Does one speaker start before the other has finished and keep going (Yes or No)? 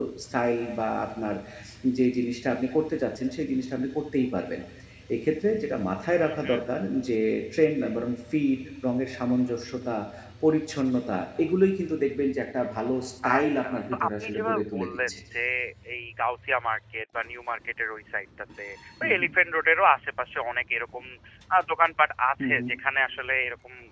Yes